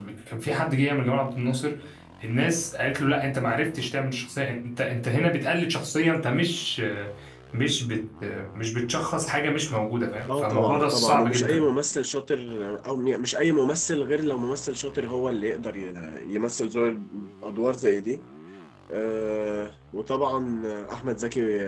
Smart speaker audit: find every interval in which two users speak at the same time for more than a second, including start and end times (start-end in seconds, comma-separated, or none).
10.3-11.6